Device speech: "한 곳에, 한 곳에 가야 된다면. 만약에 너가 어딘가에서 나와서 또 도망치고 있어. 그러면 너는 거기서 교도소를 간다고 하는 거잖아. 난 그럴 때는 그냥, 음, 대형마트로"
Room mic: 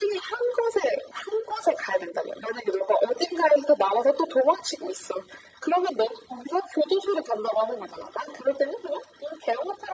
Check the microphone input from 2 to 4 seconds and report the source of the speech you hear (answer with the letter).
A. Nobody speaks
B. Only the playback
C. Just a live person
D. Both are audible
B